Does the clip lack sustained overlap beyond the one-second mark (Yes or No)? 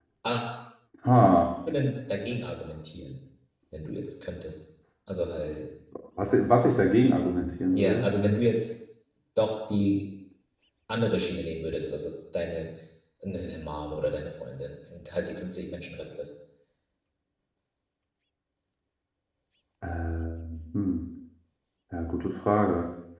Yes